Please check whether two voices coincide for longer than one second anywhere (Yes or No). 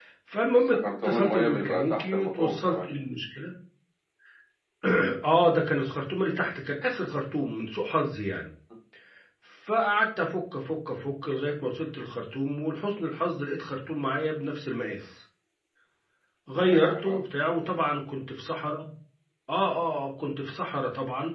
Yes